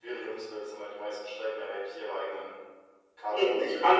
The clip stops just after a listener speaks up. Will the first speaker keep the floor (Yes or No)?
No